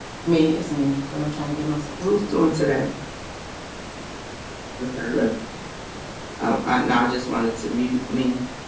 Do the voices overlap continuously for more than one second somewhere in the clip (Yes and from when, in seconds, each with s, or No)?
No